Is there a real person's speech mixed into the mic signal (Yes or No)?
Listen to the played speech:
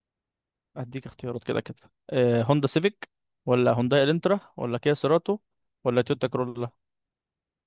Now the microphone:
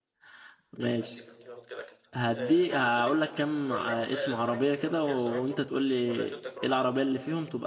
Yes